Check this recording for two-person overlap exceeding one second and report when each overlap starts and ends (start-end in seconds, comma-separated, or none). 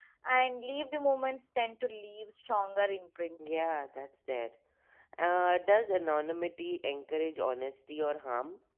none